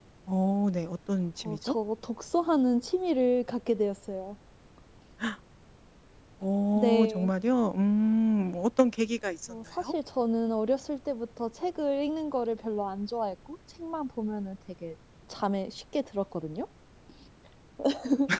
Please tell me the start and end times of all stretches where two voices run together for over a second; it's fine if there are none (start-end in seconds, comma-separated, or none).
none